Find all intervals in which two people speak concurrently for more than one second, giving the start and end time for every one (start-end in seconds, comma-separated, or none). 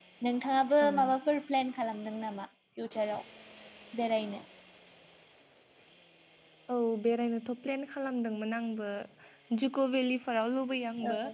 none